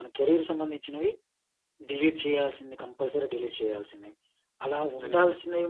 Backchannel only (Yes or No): Yes